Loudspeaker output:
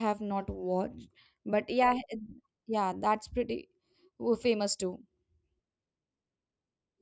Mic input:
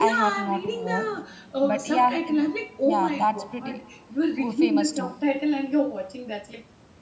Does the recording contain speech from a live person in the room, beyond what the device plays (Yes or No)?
Yes